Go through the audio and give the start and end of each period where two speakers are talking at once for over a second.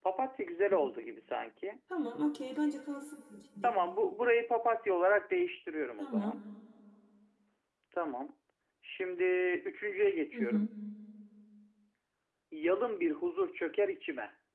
none

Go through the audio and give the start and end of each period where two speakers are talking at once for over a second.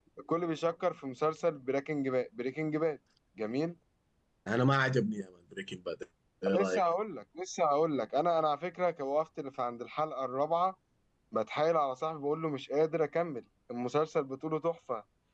none

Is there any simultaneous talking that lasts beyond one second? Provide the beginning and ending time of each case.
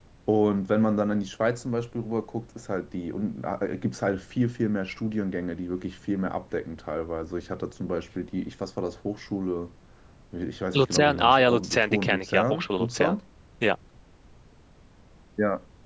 10.7-13.2

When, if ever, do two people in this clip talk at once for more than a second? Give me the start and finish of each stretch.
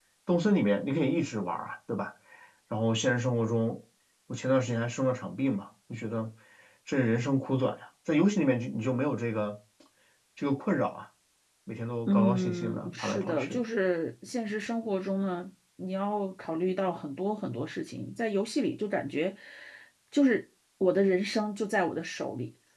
12.1-13.6

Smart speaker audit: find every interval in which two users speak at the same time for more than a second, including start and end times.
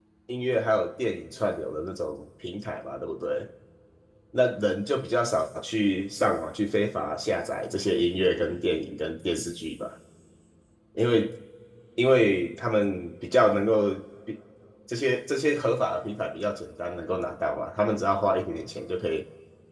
none

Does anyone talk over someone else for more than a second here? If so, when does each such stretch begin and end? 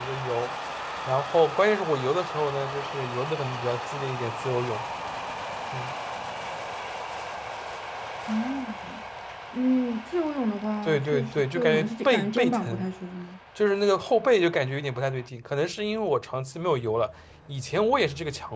10.8-12.9

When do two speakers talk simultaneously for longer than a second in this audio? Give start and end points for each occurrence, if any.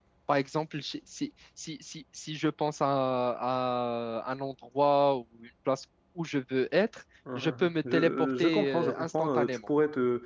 7.4-9.6

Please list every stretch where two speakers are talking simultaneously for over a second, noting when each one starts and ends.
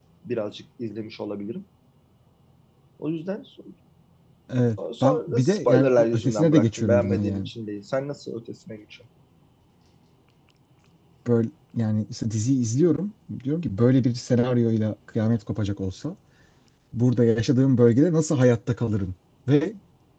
5.0-7.5

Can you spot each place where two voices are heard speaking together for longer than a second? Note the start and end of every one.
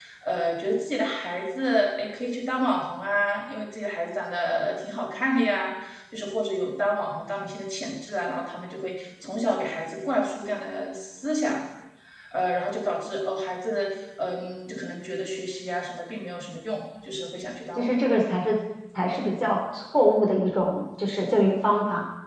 none

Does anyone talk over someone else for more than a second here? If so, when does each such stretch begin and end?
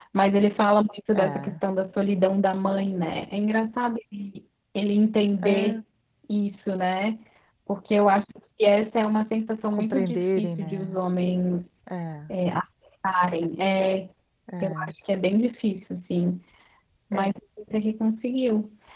9.7-11.0

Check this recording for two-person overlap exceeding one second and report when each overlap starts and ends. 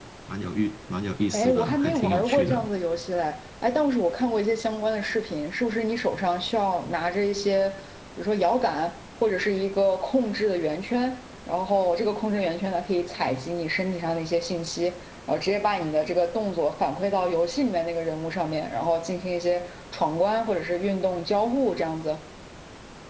1.3-2.6

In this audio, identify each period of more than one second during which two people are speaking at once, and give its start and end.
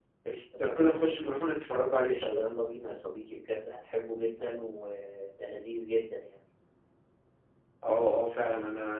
none

